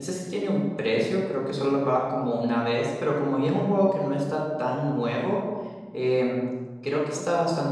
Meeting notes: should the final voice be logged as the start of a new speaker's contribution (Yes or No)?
No